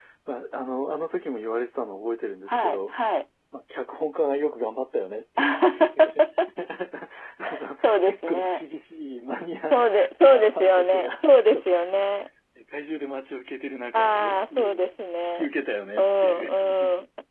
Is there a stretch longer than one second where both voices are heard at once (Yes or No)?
Yes